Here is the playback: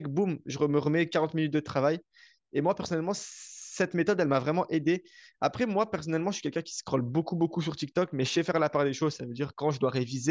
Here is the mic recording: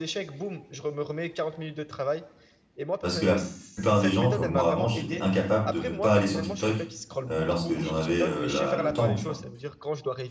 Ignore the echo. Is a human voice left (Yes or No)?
Yes